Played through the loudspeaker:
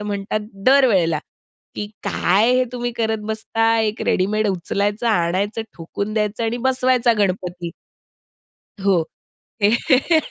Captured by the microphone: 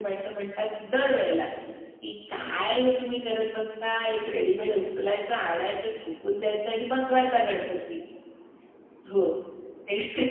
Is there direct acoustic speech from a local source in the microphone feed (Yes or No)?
No